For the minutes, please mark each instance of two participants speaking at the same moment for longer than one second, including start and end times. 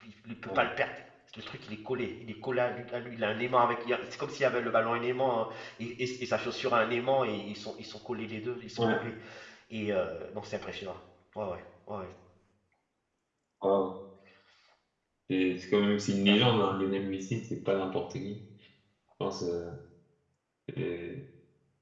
none

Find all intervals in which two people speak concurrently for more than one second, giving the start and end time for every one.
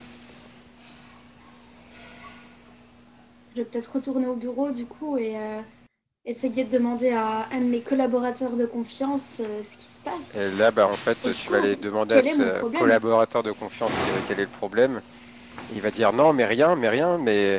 11.2-13.0

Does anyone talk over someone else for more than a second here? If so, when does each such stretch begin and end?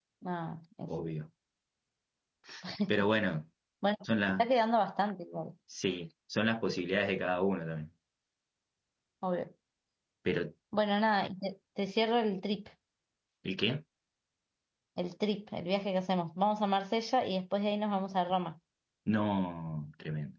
none

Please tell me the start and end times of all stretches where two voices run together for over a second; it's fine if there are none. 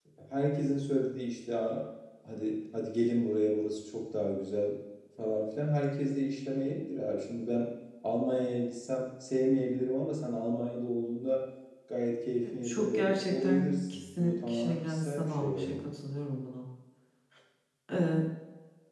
12.4-15.8

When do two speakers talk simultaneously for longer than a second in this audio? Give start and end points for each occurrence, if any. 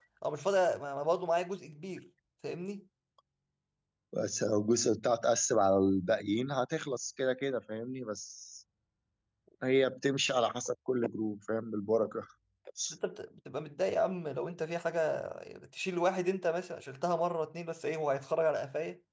none

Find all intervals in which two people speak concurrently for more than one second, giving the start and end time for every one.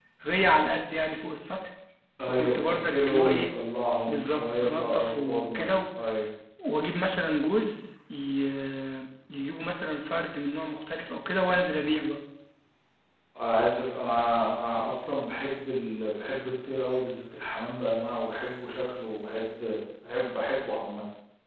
2.3-3.5, 4.1-5.8

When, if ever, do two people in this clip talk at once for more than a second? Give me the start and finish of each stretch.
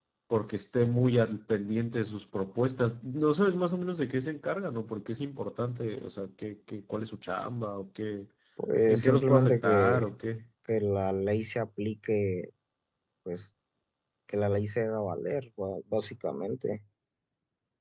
8.9-10.1

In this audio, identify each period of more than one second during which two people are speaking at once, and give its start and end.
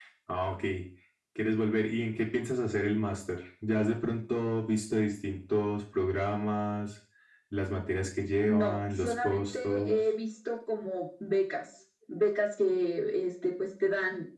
8.5-10.0

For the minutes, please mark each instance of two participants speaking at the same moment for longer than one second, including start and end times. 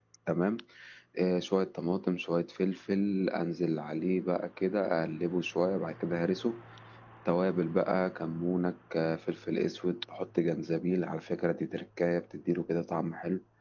none

